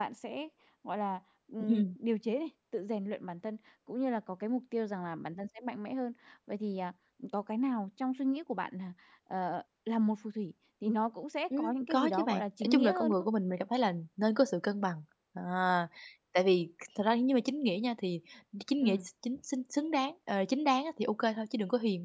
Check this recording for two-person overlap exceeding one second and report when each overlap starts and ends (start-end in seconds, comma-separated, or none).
11.6-13.1